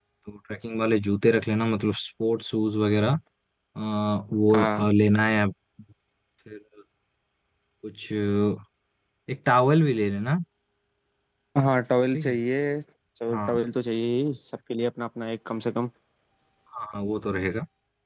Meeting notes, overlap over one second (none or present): none